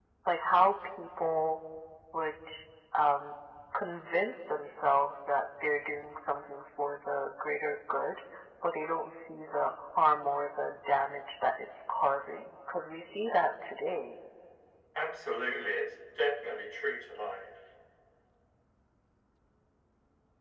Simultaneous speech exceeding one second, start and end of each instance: none

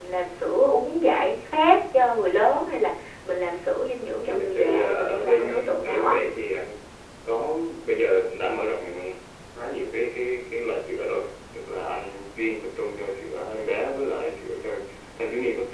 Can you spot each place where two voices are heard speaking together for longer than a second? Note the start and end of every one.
4.2-6.2

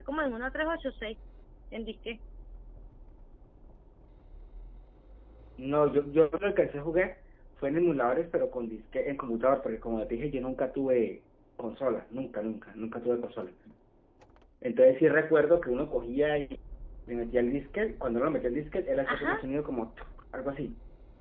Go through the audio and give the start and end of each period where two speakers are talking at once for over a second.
none

